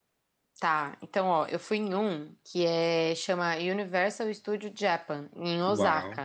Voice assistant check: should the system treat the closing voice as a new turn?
Yes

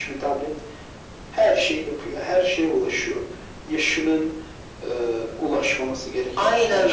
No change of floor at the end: No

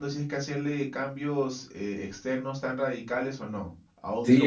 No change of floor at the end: No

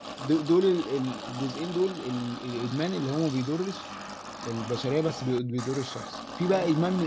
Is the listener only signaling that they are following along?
Yes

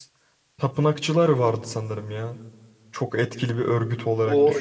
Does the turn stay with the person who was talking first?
No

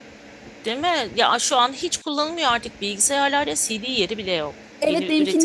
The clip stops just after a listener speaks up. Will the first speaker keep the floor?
No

